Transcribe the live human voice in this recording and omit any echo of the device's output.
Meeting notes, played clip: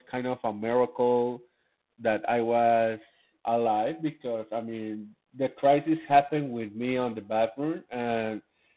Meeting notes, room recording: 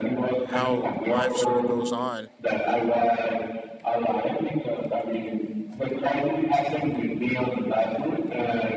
how life sort of goes on.

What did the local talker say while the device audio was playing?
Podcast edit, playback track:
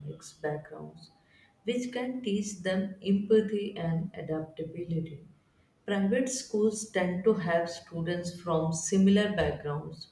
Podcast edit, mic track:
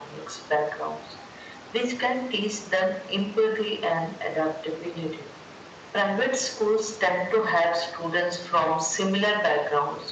none

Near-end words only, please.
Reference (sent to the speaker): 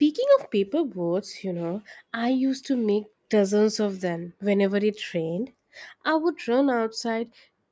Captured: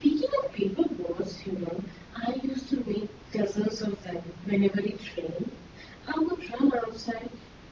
none

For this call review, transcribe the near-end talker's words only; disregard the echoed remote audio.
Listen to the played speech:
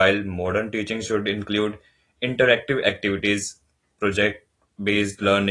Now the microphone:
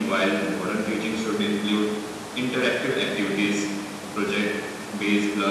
none

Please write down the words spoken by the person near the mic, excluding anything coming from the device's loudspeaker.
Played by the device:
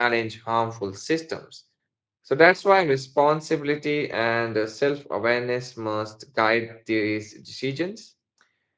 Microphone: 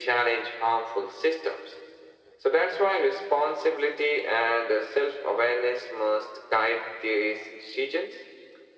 none

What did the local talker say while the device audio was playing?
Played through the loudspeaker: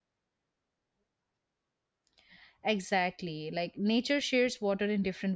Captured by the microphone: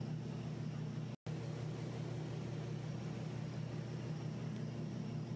none

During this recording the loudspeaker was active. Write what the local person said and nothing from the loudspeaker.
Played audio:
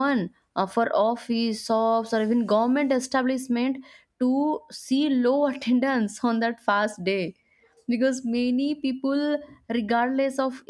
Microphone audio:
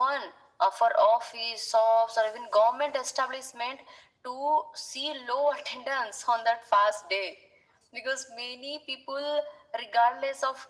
none

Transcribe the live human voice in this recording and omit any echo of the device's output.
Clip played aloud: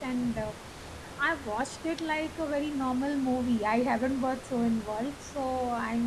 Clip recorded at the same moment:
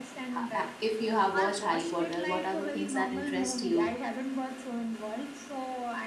ha- uh, if you have watched harry potter what are the things that interest you

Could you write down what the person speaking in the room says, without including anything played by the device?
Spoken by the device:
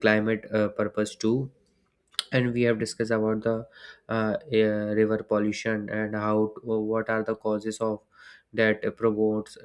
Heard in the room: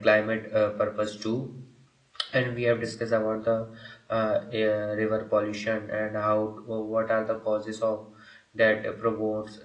none

